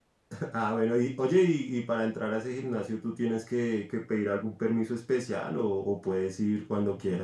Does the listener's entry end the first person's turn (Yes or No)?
Yes